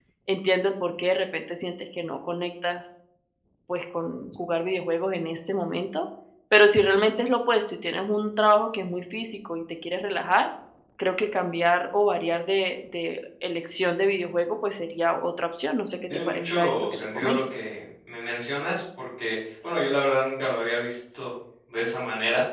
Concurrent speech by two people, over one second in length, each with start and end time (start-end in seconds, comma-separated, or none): 16.1-17.4